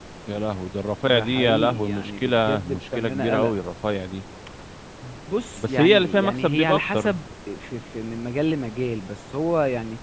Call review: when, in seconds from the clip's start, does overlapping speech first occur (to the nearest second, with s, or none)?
1 s